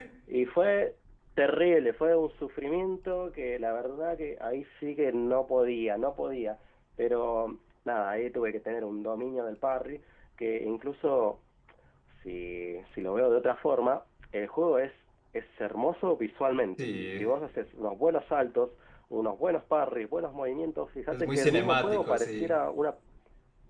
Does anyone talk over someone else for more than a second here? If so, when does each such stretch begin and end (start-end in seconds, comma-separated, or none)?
21.1-22.5